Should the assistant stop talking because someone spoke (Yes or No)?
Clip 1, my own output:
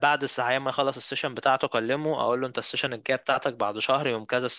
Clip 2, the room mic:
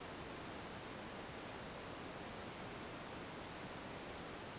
No